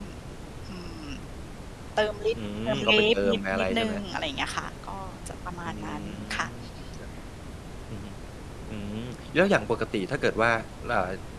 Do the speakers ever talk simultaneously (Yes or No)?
Yes